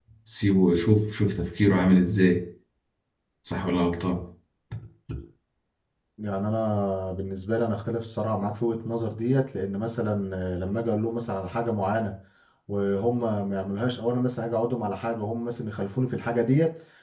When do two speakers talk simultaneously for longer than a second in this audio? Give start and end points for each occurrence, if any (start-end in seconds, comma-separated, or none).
none